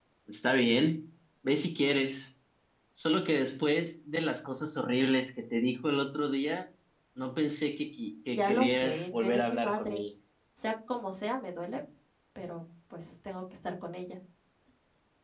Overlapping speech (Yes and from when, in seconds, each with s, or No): Yes, from 8.3 s